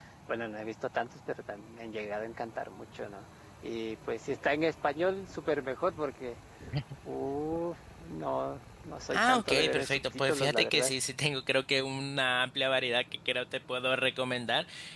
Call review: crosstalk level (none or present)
present